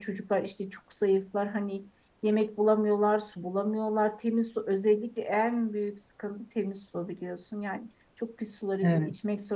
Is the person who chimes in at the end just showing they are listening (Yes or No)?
Yes